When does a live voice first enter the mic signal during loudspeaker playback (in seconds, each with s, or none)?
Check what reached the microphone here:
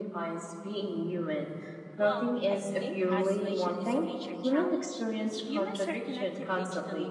1.9 s